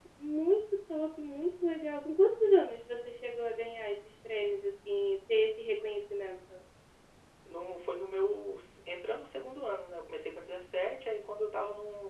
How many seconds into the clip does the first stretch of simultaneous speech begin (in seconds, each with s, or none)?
none